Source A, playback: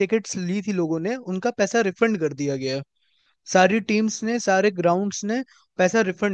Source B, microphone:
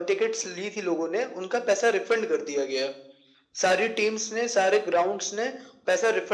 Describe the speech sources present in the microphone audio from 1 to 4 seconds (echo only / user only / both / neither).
echo only